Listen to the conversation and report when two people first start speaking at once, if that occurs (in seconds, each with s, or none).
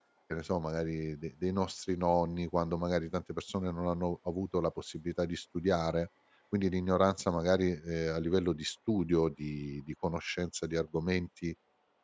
none